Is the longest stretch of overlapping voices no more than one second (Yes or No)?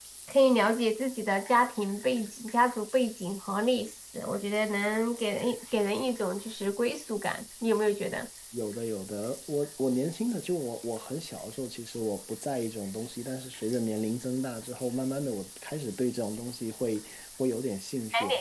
Yes